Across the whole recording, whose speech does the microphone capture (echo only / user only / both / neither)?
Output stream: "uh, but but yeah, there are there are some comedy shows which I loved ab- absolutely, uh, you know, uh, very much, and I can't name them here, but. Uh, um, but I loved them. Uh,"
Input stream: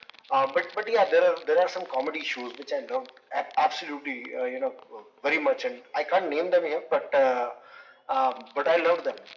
echo only